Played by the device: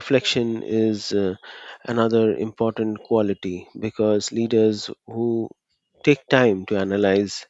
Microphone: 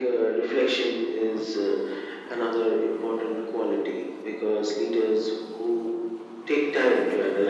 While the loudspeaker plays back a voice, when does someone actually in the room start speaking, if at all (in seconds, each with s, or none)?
none